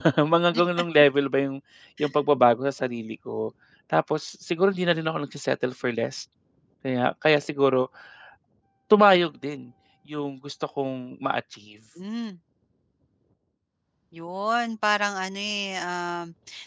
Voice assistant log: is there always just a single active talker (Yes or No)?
Yes